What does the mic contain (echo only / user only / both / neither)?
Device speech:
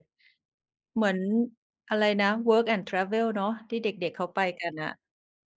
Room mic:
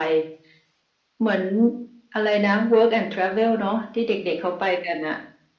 echo only